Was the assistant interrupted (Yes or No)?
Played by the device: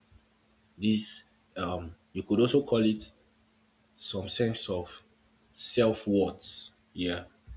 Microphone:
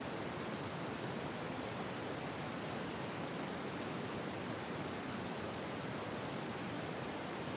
No